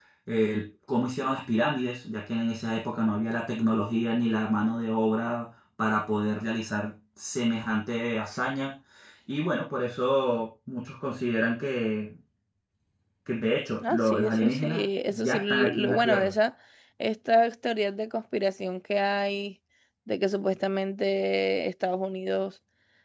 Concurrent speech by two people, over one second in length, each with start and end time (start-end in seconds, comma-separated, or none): 13.9-16.3